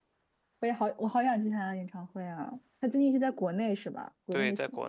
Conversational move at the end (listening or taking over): taking over